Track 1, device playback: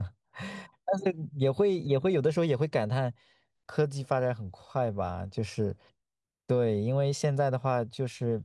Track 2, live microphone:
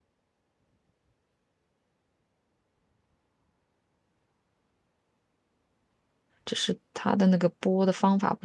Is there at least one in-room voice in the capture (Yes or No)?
Yes